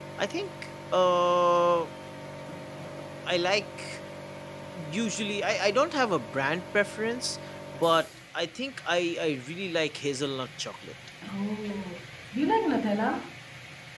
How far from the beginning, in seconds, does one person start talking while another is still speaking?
none

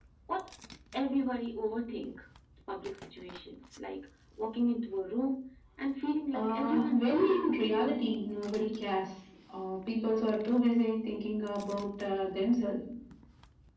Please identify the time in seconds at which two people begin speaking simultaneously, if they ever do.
6.3 s

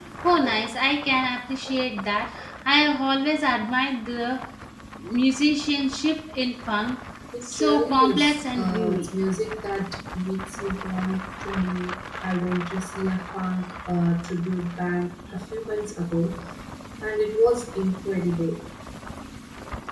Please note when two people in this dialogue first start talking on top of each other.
7.3 s

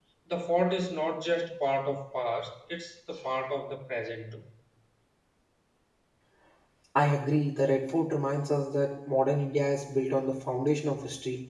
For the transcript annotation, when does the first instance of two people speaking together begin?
none

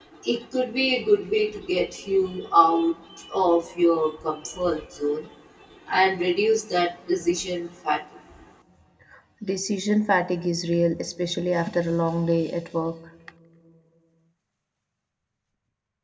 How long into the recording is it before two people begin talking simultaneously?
none

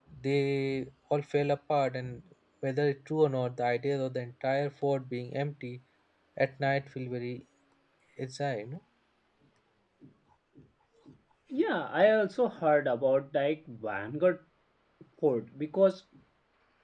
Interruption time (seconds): none

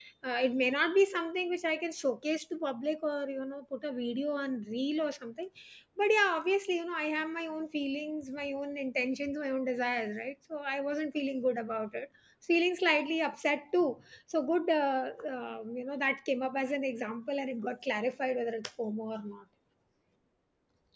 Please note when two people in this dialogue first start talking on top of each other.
none

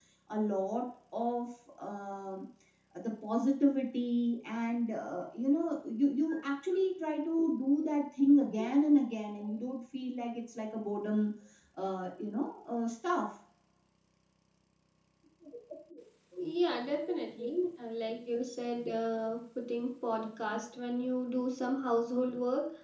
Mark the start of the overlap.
none

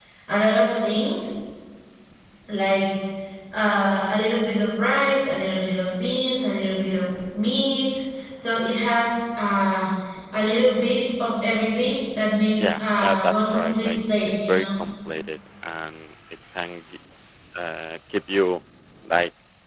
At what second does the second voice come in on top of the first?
12.6 s

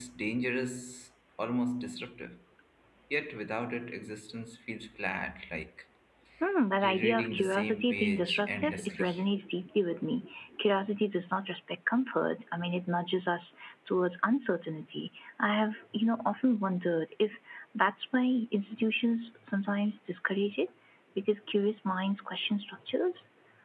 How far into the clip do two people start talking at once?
6.8 s

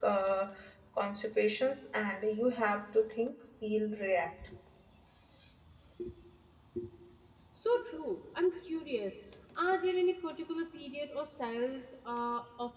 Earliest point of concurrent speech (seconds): none

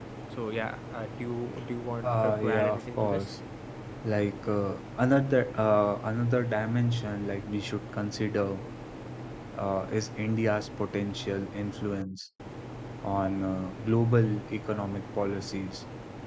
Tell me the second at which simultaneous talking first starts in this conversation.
2.0 s

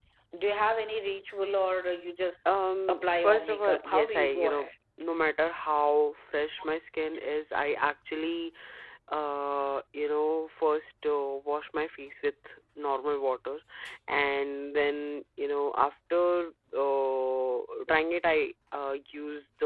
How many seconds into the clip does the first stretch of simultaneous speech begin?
2.9 s

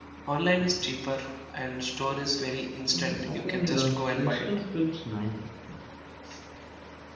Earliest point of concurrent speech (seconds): 2.9 s

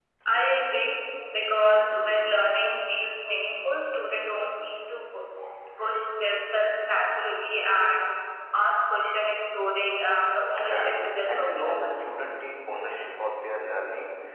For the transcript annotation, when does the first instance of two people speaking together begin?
10.7 s

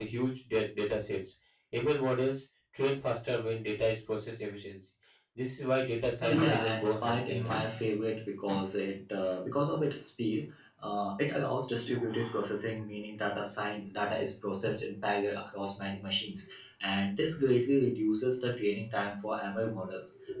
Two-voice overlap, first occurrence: 6.2 s

